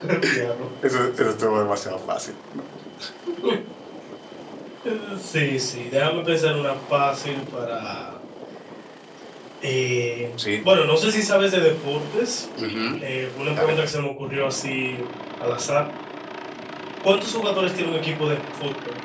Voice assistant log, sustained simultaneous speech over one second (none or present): none